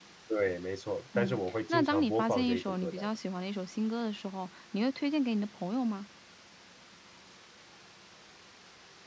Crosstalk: present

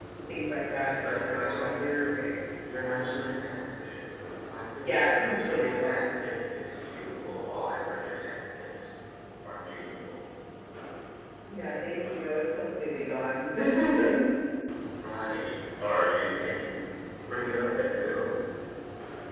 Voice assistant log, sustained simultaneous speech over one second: present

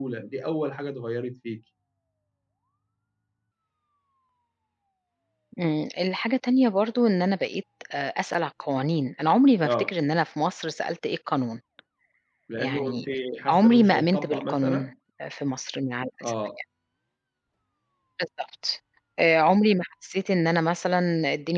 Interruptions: present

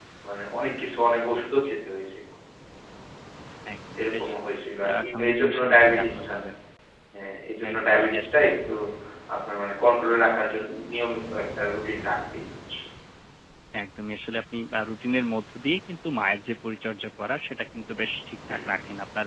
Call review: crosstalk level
present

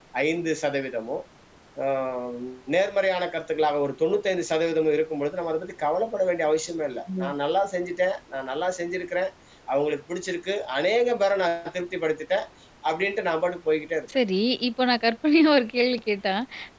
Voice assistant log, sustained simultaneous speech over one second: none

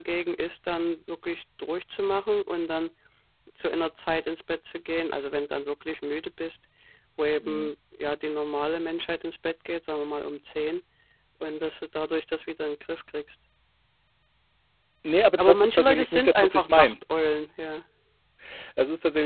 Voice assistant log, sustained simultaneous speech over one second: present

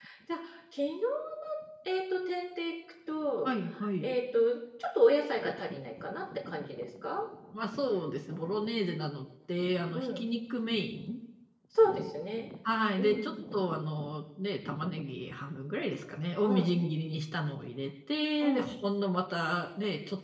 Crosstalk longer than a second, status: none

